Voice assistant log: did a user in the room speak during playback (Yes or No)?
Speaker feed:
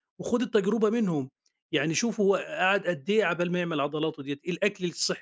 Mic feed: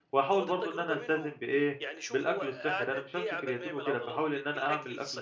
Yes